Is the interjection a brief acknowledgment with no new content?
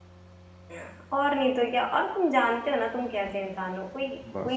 Yes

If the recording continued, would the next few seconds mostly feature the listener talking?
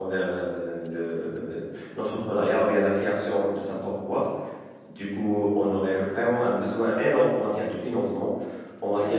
No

